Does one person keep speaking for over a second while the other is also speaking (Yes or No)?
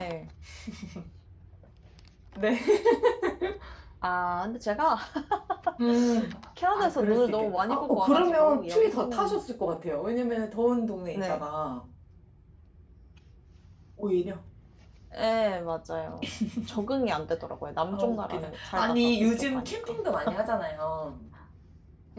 Yes